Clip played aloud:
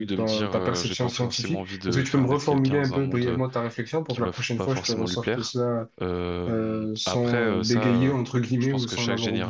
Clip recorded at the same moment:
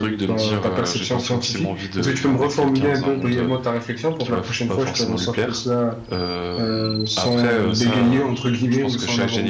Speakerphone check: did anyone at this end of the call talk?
No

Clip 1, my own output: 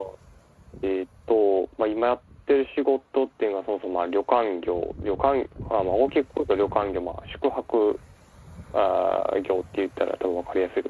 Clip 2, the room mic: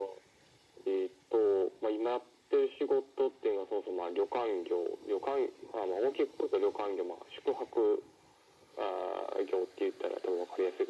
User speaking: No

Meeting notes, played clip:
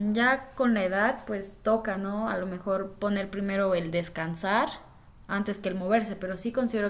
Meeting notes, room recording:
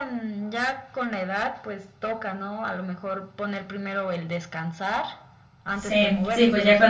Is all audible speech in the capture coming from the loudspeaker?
No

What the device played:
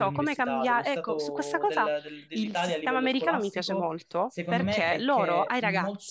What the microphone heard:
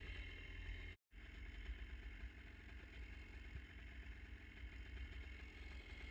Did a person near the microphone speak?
No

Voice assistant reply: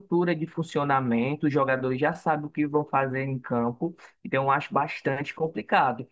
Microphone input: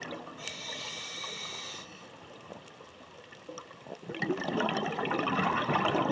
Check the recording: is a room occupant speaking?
No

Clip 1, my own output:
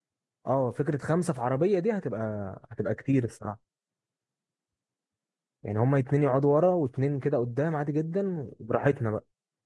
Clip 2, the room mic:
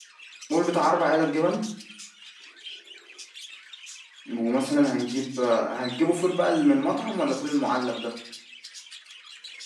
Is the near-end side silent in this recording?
No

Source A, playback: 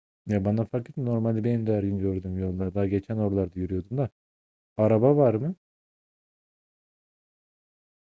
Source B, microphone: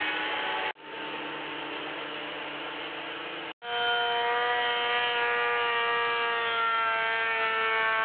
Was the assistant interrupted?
No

